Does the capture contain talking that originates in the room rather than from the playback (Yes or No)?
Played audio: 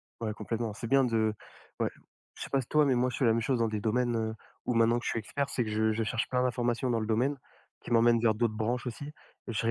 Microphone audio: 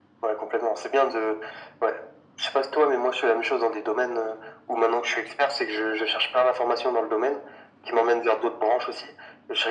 No